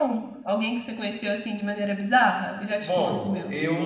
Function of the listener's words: taking over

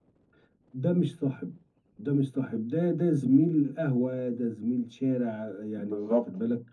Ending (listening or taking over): listening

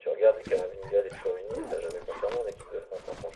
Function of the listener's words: taking over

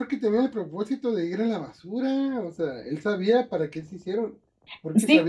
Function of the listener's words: taking over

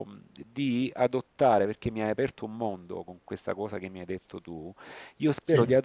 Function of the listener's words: listening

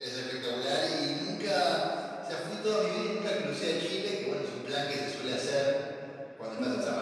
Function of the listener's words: listening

